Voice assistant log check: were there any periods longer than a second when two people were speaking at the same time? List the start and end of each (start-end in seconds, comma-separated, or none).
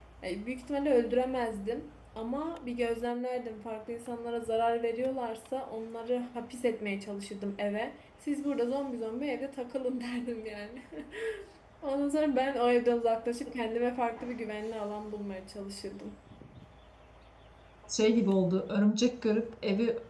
none